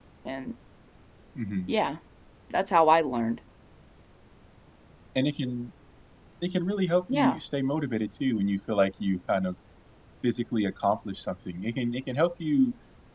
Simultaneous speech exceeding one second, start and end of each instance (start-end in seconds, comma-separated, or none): none